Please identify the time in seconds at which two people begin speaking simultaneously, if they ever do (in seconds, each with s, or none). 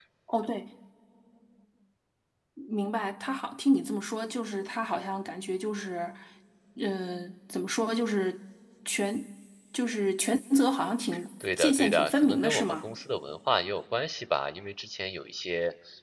11.4 s